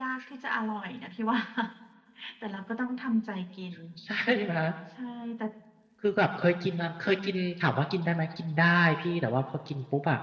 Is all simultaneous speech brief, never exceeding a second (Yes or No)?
Yes